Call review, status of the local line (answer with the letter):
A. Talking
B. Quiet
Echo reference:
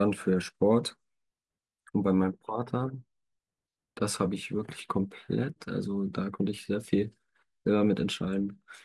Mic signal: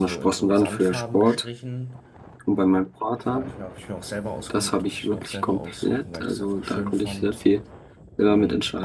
A